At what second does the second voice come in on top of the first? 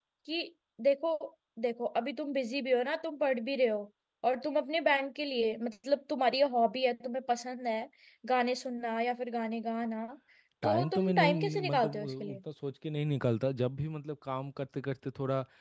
10.6 s

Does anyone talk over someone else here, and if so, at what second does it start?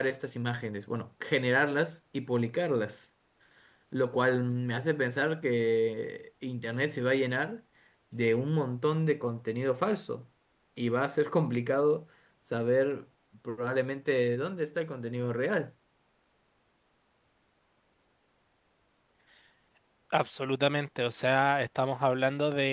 none

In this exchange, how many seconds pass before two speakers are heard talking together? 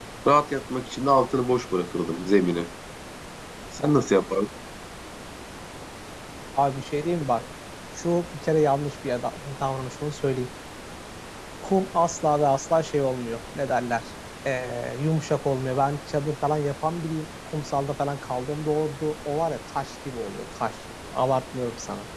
none

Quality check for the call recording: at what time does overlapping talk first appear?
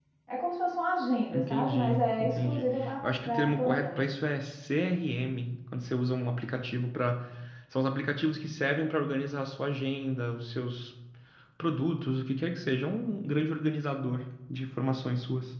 1.3 s

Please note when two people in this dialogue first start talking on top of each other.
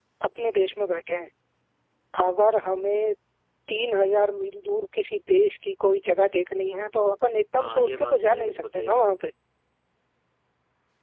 7.6 s

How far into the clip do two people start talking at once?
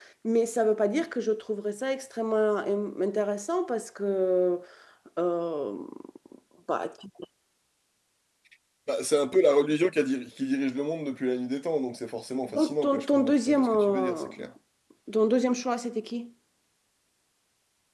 12.5 s

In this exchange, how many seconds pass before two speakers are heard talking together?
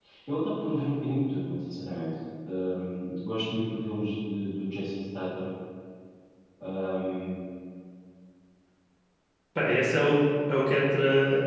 none

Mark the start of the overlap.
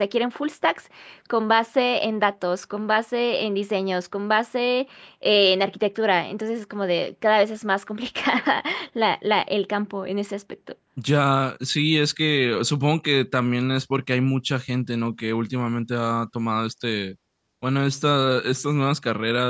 none

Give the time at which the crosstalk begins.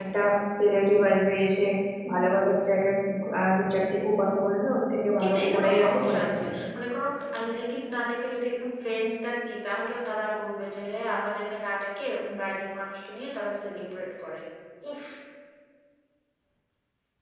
5.2 s

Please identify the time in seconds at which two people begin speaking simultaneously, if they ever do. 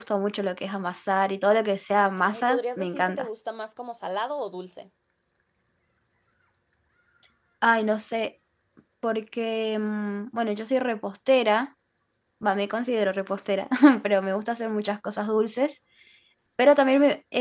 2.0 s

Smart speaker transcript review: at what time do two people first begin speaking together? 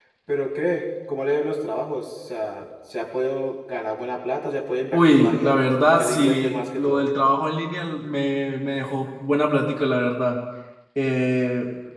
4.9 s

